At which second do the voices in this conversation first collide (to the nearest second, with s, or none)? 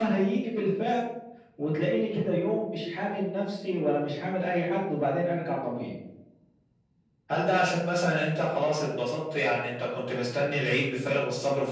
none